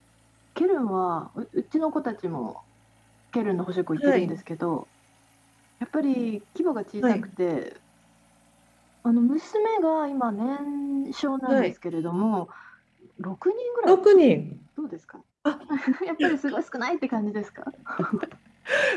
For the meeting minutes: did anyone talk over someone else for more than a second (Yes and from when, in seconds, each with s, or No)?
No